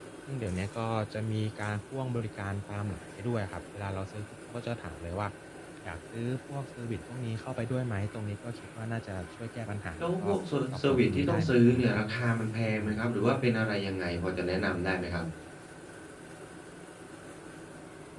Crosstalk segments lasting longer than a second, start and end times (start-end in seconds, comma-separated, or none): 10.7-12.0